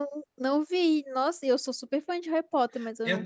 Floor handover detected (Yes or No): Yes